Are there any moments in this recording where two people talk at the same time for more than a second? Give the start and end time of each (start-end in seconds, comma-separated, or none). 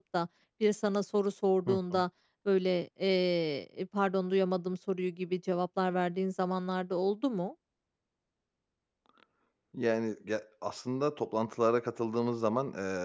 none